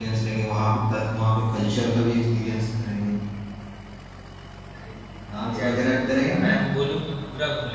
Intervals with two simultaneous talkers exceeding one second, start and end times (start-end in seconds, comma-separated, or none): 5.3-6.6